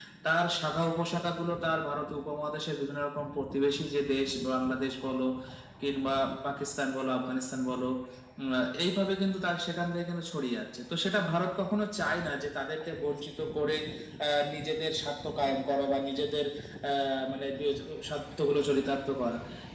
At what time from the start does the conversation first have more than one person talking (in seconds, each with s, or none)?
none